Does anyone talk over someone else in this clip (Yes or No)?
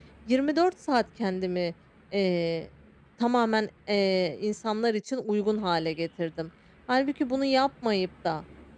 No